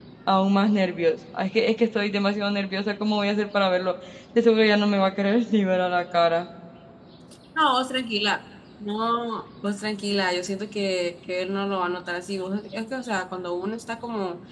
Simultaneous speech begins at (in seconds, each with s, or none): none